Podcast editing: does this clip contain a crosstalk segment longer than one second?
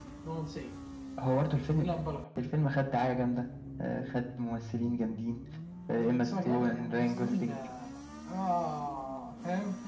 Yes, from 6.2 s

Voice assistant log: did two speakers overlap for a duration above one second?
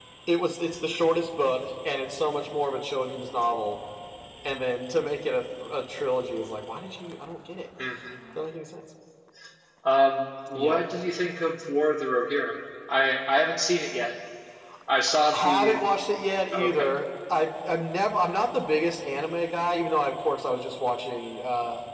No

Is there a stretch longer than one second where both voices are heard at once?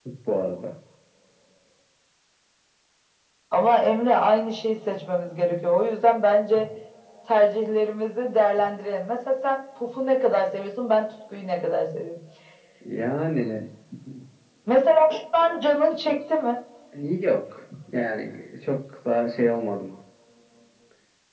No

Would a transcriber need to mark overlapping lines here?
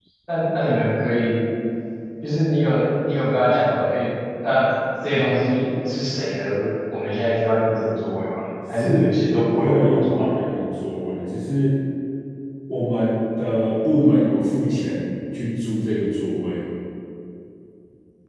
Yes, from 8.8 s

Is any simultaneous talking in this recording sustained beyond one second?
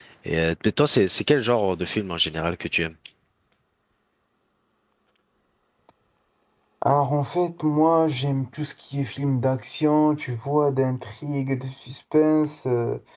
No

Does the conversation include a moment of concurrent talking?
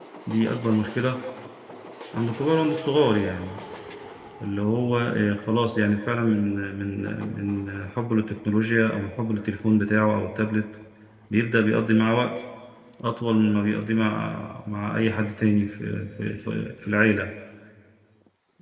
No

